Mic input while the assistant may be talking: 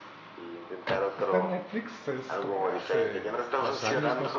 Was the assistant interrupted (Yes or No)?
Yes